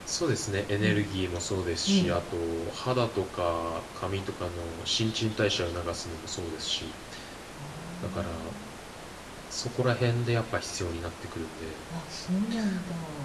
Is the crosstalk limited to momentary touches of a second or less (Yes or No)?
Yes